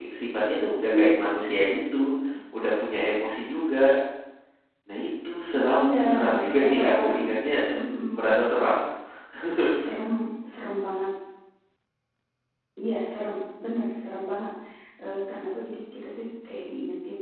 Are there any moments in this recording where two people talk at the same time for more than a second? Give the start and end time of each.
5.8-7.1

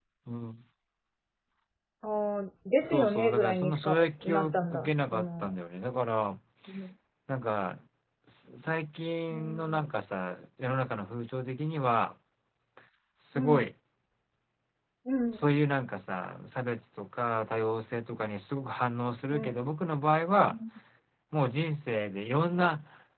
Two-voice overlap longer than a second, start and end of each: 2.8-5.5

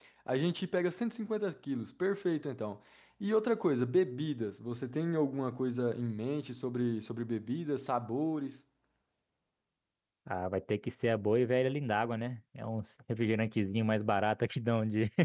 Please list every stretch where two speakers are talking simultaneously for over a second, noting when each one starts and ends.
none

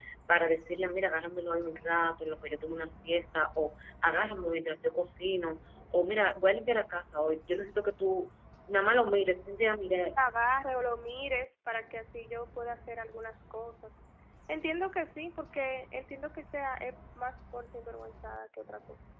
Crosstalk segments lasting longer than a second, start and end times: none

